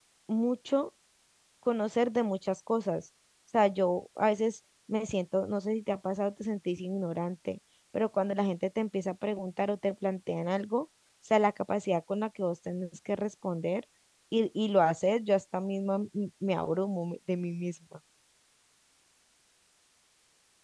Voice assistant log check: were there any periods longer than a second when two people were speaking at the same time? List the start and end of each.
none

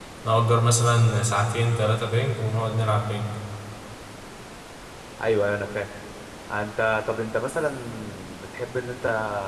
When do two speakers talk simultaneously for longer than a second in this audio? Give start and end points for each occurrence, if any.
none

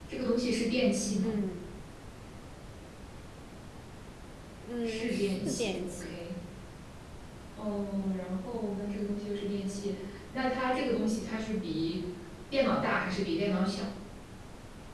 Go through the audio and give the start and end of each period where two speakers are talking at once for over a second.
4.8-6.1

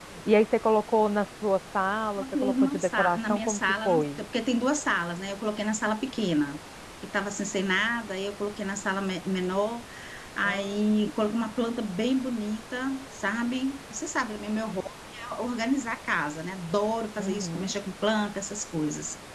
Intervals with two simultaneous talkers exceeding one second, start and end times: 2.2-4.2

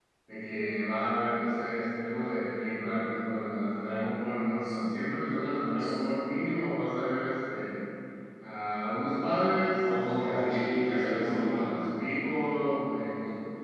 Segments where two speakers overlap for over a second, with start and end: 9.8-11.5

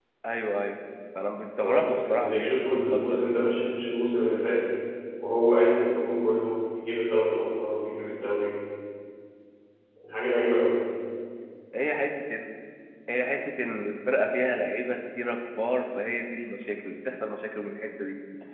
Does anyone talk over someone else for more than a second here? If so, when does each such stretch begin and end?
1.6-3.3

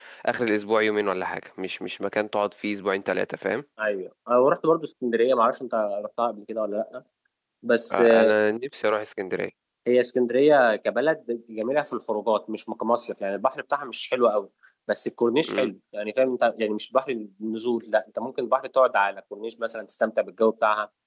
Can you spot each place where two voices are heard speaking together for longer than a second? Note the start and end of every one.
none

